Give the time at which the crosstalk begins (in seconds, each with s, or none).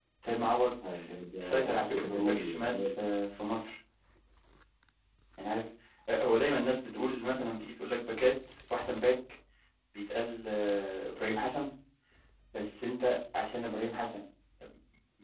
1.4 s